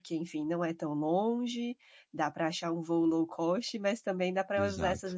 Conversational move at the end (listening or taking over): listening